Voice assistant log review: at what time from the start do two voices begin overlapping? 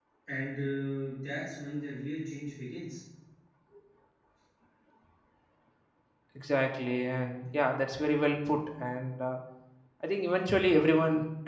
none

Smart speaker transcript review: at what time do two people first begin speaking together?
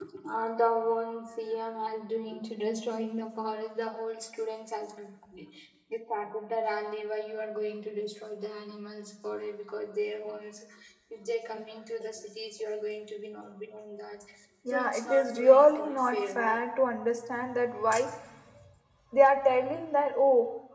14.7 s

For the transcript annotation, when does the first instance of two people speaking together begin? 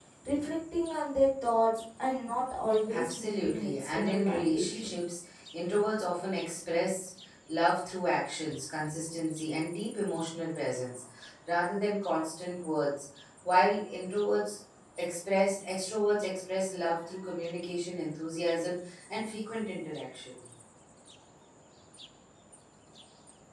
2.9 s

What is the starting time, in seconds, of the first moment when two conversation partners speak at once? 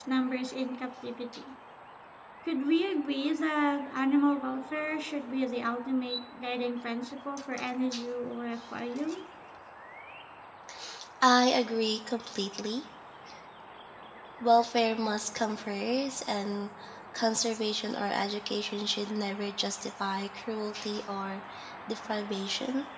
none

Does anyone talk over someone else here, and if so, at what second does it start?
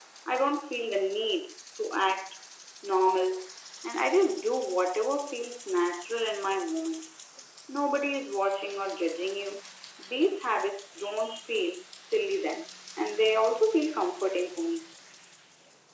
none

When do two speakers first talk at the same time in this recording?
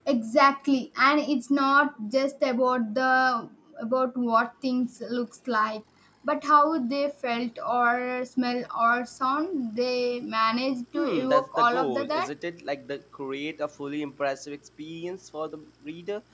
10.9 s

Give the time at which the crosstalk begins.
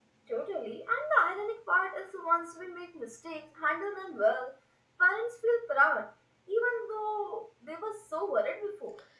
none

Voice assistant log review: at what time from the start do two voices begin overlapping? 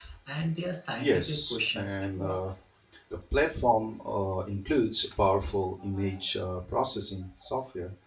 1.0 s

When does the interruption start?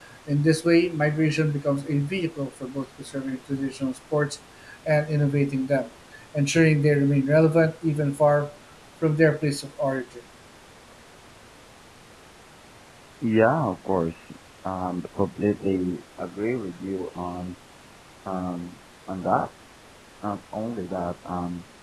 none

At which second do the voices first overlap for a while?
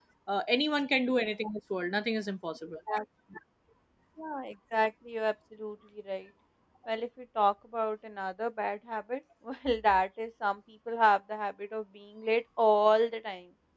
none

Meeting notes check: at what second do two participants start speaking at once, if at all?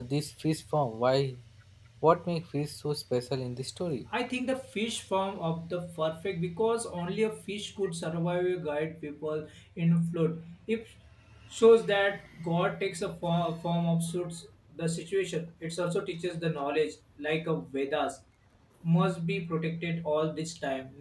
none

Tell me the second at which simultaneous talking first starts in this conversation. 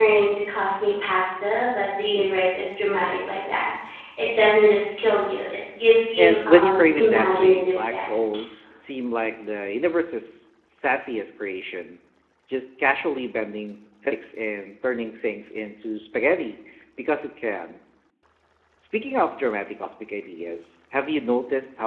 6.2 s

